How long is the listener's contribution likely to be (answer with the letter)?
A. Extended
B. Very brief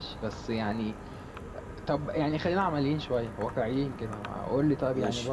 B